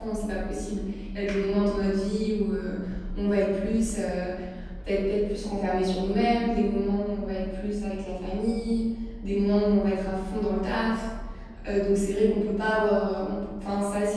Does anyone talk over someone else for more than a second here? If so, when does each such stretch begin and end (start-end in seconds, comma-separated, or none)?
none